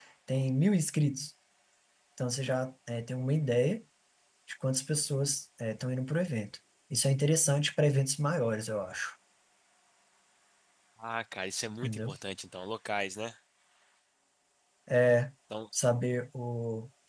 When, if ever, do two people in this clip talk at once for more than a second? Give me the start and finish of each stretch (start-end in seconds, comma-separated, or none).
none